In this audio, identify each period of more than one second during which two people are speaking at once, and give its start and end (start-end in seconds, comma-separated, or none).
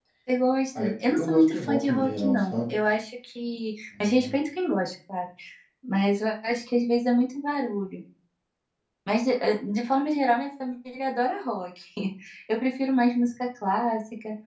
0.8-2.8